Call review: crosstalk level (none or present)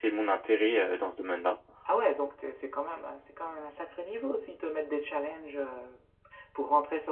none